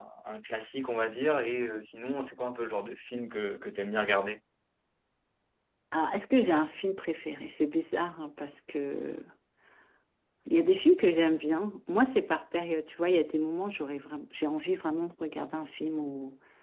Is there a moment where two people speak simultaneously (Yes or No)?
No